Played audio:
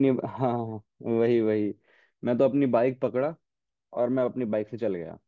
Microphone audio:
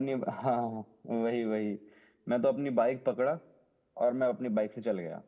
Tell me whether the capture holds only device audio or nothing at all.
Yes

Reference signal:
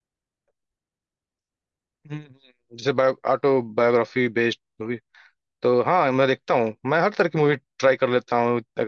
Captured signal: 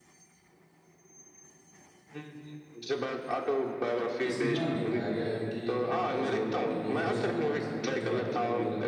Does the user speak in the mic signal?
Yes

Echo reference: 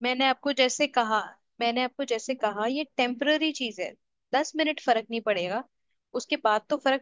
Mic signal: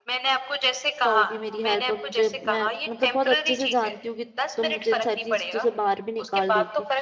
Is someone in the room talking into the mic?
Yes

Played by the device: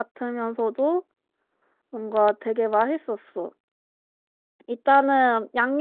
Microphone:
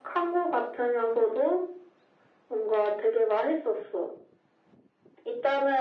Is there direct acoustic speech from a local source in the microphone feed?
No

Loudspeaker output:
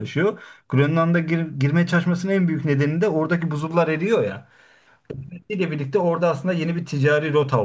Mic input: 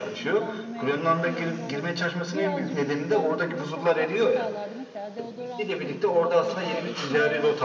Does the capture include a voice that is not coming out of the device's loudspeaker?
Yes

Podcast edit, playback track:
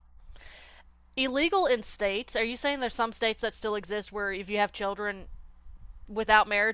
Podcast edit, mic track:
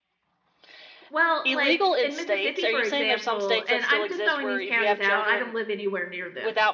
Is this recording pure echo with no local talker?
No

